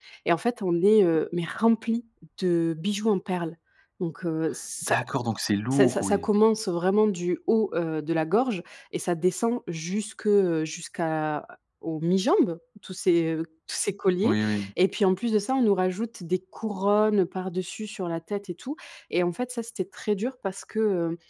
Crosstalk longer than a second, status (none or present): none